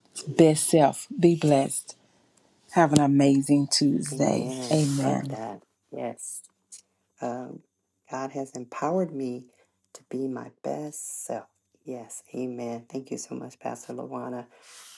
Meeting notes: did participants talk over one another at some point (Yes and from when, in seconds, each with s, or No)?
Yes, from 4.1 s